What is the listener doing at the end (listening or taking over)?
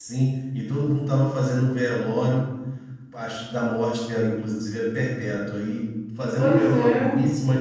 listening